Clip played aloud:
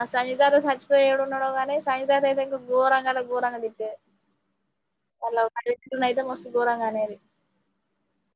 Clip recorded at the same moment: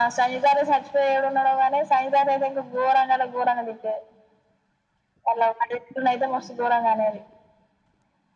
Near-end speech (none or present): none